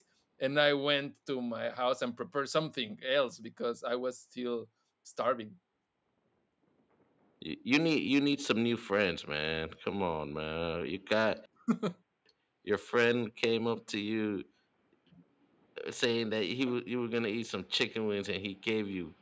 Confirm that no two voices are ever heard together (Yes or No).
Yes